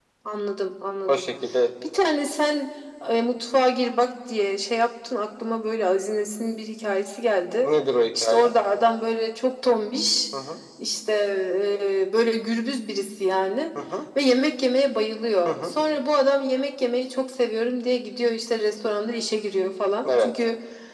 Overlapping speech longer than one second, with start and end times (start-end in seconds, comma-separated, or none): none